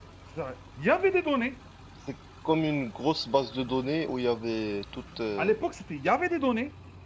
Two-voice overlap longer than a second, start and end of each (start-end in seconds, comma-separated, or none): none